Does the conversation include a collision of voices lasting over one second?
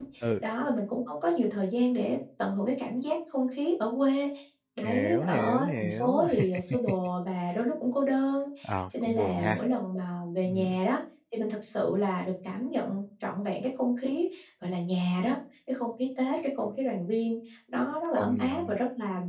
Yes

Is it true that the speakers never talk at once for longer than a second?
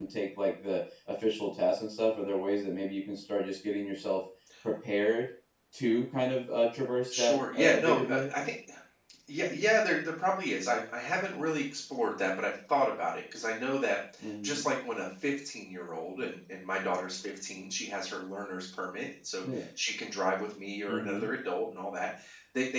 No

